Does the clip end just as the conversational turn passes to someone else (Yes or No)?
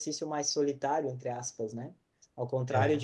No